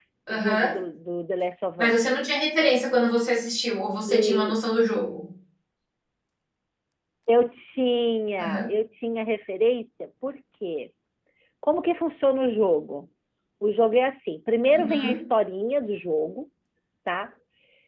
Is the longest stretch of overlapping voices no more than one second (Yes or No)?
Yes